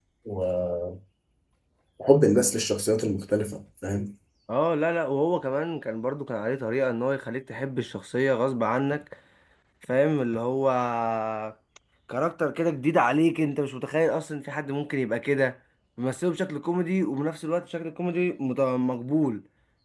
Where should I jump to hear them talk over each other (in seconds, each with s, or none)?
none